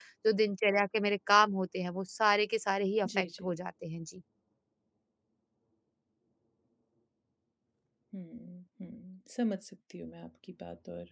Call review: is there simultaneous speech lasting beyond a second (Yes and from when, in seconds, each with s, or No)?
No